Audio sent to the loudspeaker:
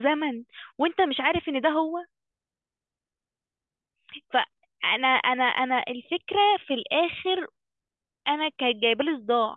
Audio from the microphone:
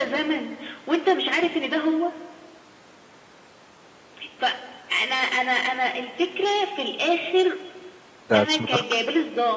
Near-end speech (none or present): present